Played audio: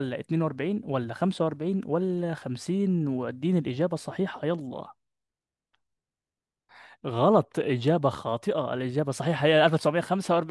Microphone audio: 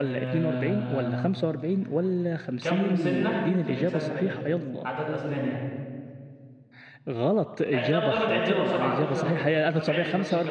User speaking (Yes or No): Yes